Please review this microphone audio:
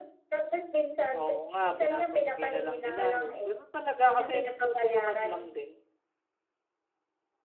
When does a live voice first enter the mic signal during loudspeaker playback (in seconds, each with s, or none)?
1.2 s